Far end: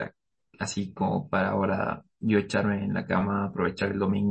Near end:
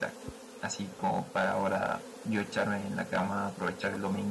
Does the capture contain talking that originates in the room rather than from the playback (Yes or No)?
No